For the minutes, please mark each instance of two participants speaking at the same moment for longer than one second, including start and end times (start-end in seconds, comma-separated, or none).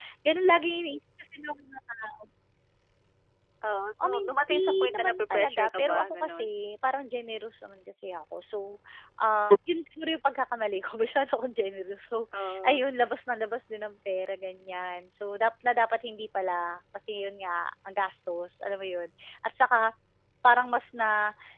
4.0-6.5